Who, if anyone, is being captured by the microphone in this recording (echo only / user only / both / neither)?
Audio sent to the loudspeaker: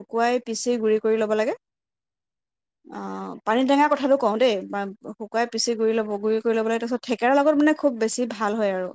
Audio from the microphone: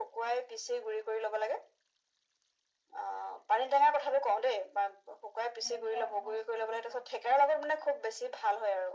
both